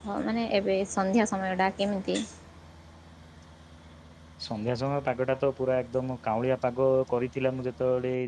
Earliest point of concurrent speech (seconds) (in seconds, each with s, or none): none